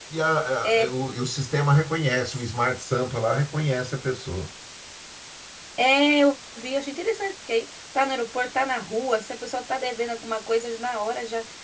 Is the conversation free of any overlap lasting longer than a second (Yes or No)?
Yes